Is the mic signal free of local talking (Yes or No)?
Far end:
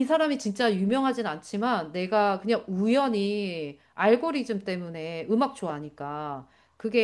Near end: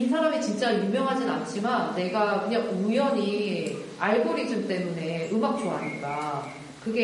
Yes